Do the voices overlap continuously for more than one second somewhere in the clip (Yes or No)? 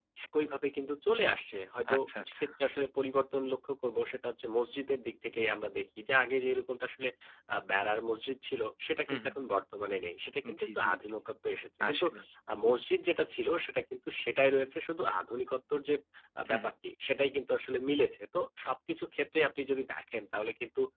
No